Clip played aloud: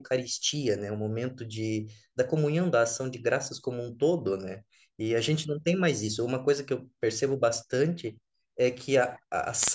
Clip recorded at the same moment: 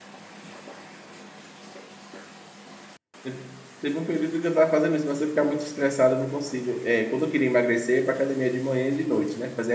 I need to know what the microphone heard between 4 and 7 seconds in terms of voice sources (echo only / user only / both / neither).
user only